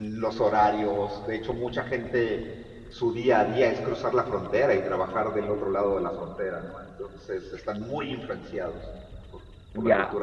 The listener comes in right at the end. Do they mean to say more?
Yes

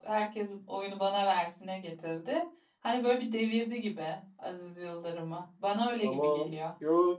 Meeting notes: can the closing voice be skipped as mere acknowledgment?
No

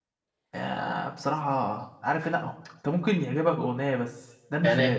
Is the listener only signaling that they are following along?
No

